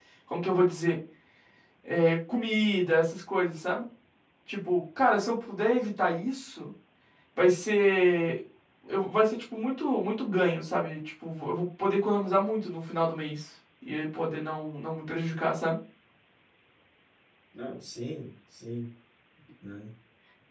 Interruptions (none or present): none